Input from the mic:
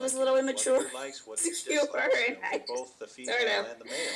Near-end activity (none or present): none